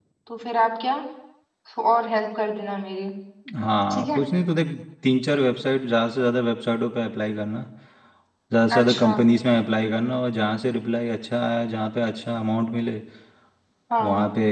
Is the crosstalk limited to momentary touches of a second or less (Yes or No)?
Yes